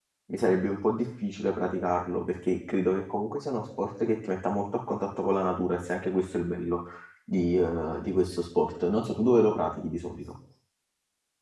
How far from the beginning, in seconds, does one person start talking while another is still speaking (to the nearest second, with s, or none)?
none